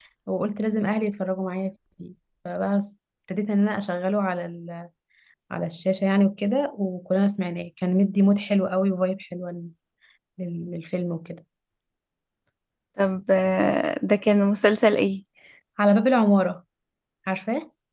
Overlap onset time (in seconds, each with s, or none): none